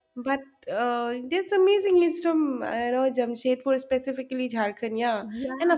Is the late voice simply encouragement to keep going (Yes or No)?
Yes